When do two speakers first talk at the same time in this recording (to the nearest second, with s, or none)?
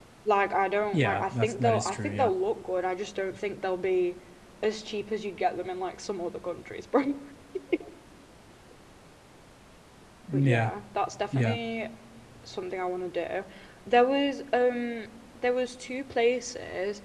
1 s